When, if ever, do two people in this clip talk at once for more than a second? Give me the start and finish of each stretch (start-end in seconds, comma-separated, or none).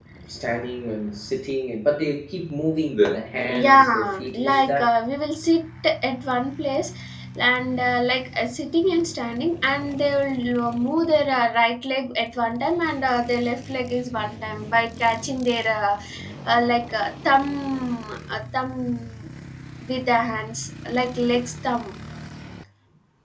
3.5-4.8